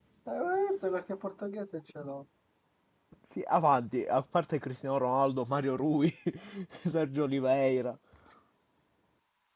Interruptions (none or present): none